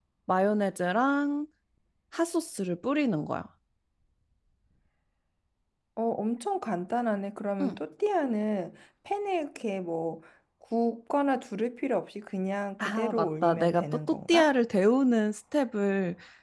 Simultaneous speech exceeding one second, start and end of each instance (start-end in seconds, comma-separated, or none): 12.8-14.5